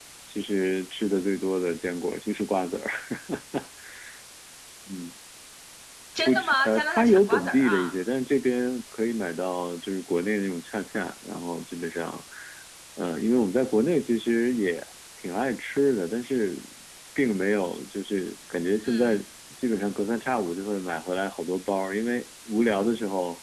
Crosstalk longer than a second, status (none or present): present